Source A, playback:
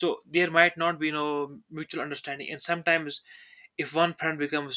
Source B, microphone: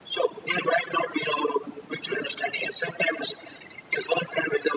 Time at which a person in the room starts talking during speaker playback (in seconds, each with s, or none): none